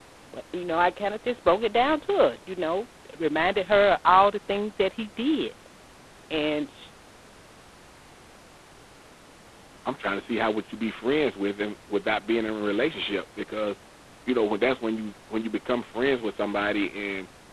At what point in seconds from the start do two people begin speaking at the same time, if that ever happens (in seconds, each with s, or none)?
none